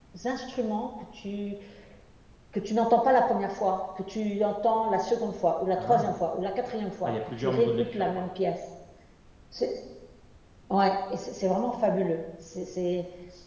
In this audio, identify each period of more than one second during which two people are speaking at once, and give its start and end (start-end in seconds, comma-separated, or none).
7.0-8.3